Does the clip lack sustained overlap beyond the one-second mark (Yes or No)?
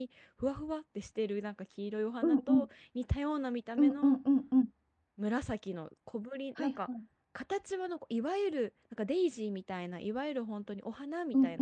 Yes